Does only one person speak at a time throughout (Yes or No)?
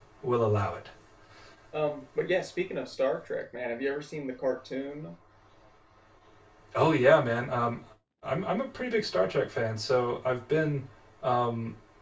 Yes